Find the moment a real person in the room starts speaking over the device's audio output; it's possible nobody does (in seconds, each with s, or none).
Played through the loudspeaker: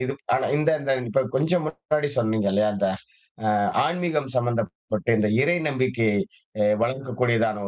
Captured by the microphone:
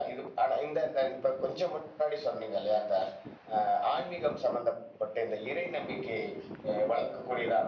none